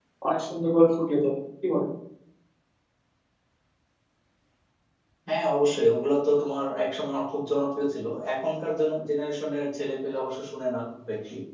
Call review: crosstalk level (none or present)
none